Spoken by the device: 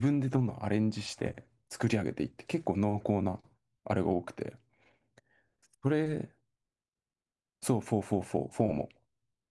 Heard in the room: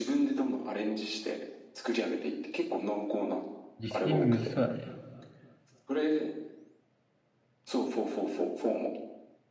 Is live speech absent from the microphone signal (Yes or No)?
No